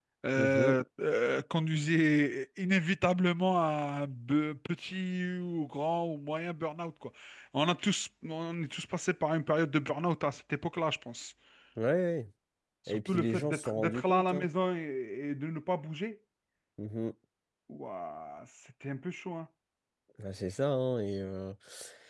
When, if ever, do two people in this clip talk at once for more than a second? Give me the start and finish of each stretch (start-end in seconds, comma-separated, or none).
12.9-14.5